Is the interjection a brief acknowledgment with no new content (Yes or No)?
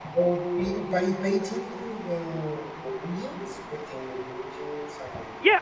No